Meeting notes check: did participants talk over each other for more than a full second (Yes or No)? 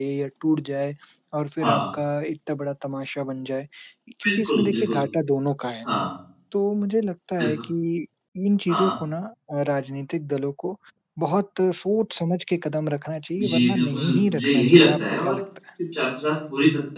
Yes